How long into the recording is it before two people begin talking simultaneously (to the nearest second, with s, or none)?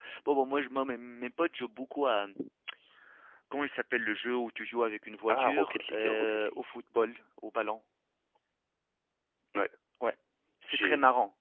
5 s